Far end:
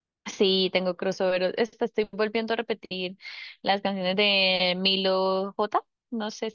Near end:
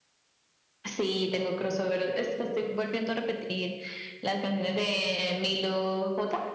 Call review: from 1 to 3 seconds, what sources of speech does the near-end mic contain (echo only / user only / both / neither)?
echo only